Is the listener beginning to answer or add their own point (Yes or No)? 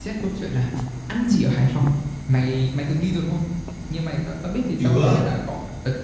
No